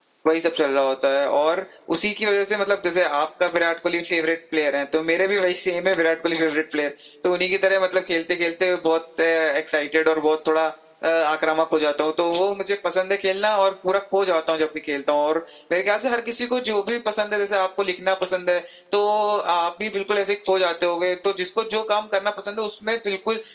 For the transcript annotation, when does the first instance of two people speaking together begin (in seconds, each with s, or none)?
none